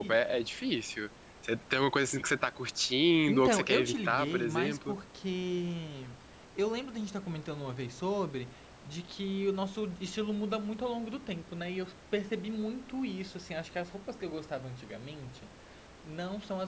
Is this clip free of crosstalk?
No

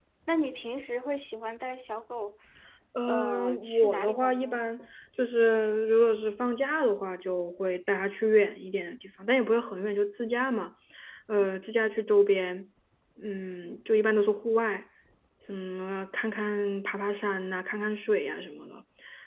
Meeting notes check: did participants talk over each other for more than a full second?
Yes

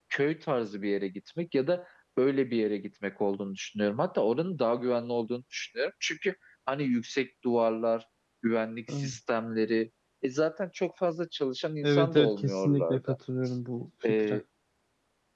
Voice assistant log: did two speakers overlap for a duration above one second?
Yes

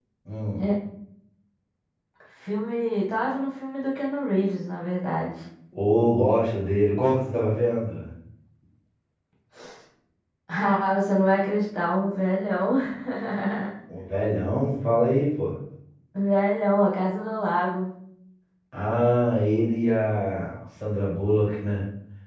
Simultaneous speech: No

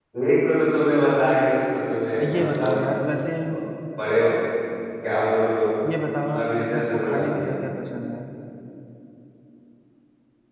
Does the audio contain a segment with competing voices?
Yes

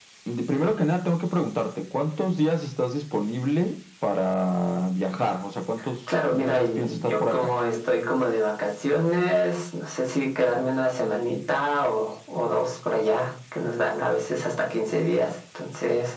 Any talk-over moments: Yes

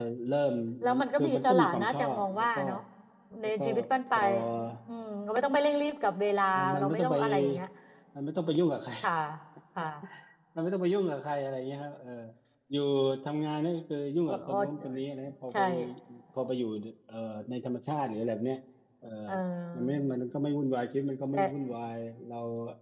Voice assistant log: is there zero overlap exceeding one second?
No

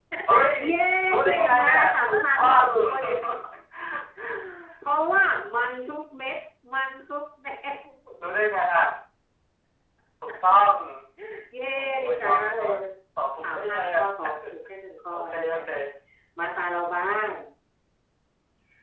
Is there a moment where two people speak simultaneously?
Yes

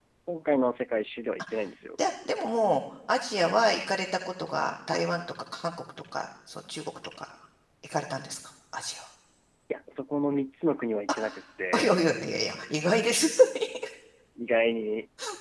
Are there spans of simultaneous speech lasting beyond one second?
No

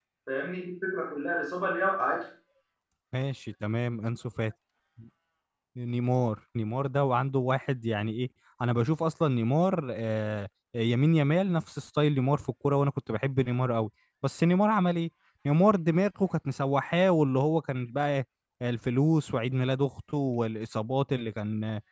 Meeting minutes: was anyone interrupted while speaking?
No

